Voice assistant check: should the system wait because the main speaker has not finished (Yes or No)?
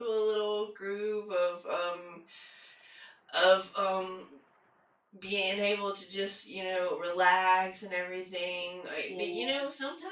Yes